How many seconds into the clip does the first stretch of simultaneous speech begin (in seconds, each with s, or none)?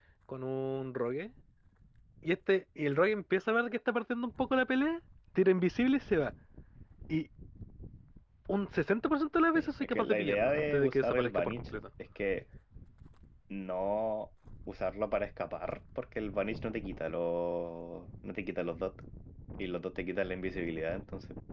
9.5 s